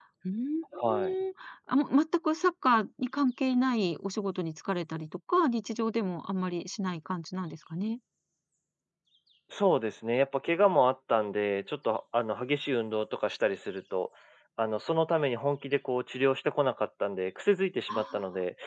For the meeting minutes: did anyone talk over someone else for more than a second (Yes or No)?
No